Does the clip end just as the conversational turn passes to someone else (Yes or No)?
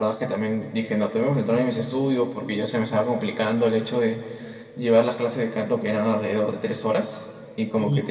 No